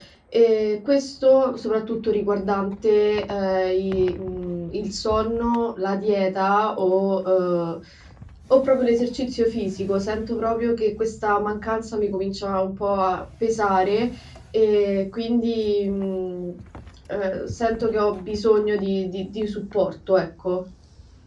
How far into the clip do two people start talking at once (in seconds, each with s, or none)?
none